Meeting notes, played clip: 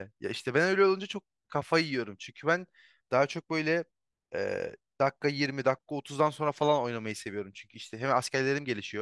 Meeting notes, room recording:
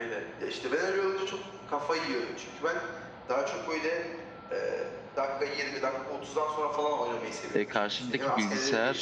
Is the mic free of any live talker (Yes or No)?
No